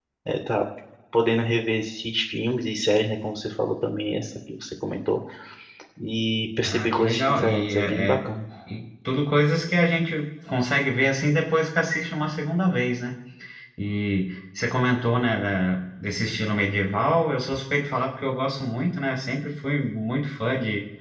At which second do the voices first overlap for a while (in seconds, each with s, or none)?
6.6 s